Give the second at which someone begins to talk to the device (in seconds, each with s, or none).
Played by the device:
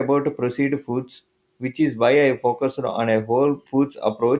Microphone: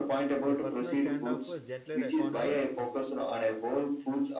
0.4 s